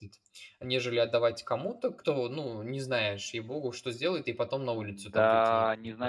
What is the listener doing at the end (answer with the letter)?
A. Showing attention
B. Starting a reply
B